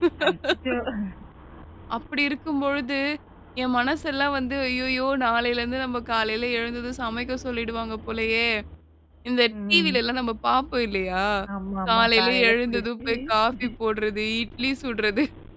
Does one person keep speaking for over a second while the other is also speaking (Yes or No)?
Yes